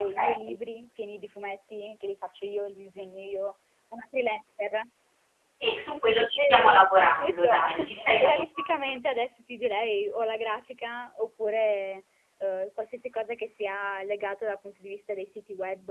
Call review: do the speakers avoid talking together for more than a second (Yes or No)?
No